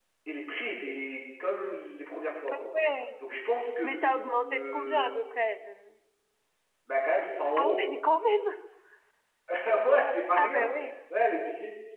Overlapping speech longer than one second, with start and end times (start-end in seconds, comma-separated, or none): 3.8-5.1